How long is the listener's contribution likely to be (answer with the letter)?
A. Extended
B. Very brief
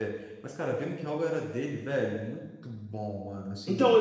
A